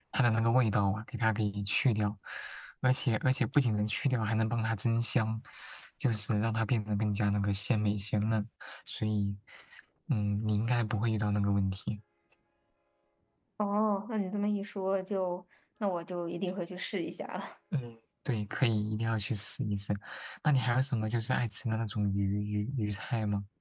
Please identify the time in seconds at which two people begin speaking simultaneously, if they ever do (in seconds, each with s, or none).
none